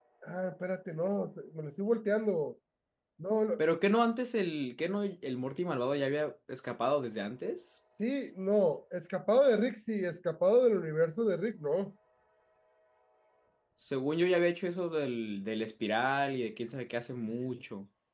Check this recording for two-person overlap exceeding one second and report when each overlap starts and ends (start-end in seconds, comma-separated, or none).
none